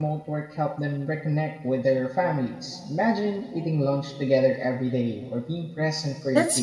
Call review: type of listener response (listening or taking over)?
taking over